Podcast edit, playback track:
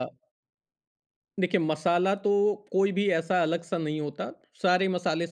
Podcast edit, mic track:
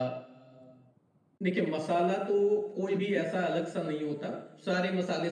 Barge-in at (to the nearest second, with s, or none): 3 s